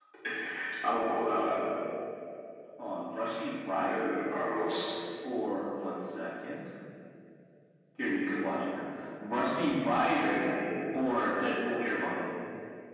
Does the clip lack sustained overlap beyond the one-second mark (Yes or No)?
Yes